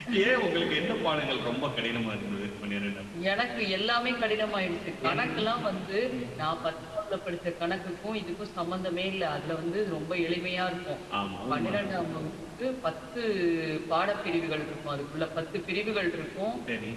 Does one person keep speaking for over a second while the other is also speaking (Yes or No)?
No